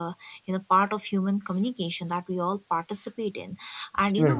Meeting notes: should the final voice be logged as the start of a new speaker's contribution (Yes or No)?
No